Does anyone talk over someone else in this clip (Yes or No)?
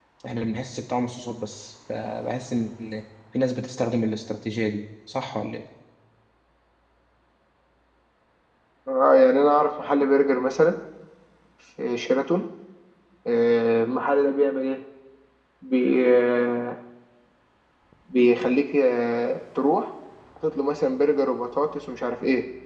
No